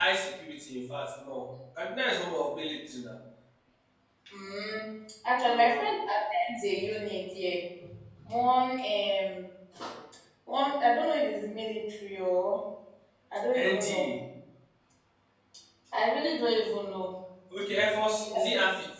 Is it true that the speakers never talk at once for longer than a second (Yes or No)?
Yes